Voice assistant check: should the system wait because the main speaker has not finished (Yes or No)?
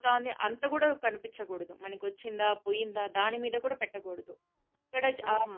Yes